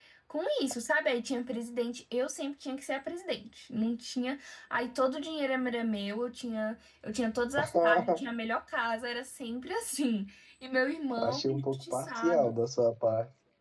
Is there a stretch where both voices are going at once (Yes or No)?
Yes